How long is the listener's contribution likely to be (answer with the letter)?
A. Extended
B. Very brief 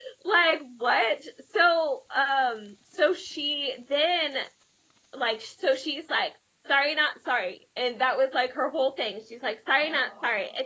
B